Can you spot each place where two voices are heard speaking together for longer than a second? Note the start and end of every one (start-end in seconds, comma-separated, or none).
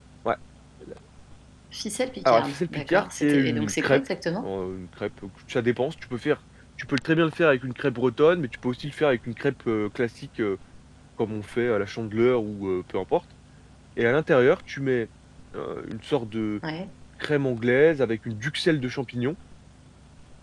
2.2-4.0